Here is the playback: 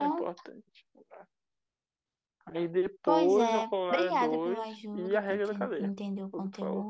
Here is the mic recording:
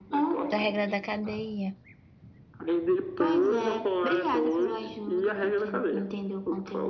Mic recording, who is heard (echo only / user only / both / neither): both